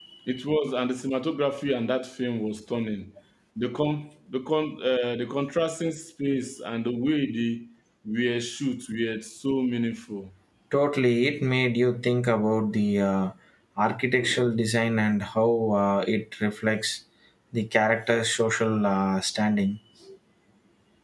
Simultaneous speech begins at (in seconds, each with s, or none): none